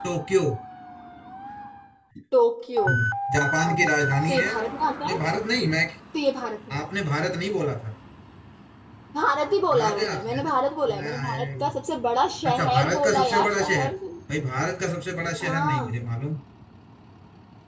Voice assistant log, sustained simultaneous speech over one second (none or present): present